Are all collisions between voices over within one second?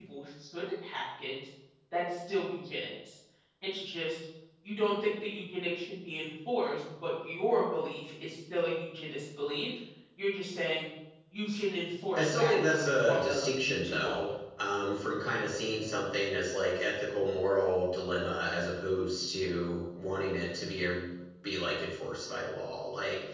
No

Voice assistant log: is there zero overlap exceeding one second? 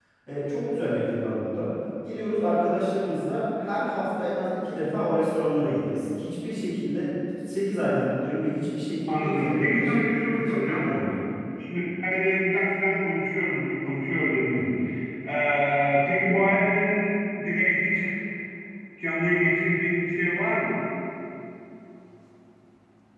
No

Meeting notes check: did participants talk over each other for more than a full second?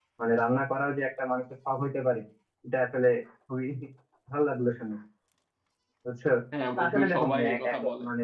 Yes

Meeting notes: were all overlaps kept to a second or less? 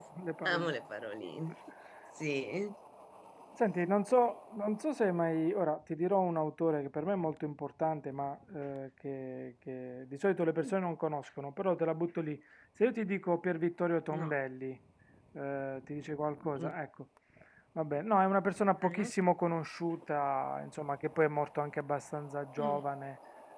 Yes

